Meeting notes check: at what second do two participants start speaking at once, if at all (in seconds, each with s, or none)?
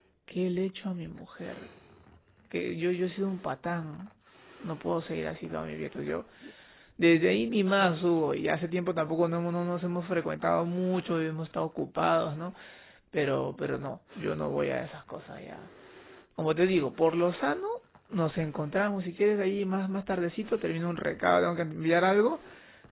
none